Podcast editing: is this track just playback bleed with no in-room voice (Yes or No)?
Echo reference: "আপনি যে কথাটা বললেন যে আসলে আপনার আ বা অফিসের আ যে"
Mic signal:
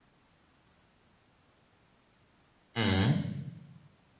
No